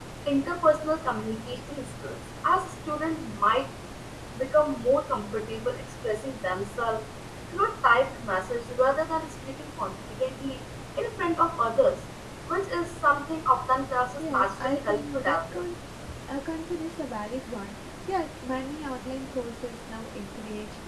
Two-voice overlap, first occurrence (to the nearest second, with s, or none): 14 s